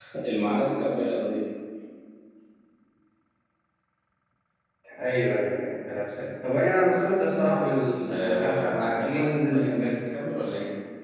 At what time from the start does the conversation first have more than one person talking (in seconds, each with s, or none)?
8.1 s